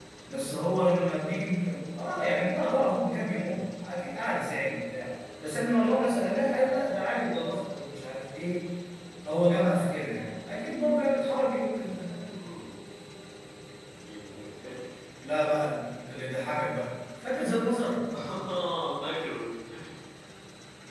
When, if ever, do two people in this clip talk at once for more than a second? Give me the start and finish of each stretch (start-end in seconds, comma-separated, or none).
none